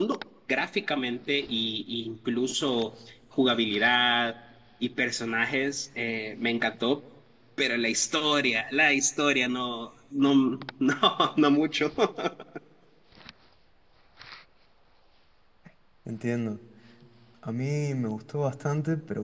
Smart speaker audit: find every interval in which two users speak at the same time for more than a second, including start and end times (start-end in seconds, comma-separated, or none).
none